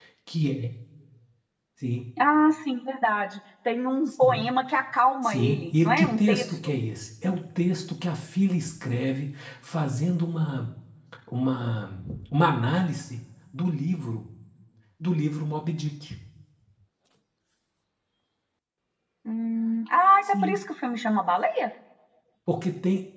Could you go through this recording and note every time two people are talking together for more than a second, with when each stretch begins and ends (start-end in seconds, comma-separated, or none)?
5.2-6.7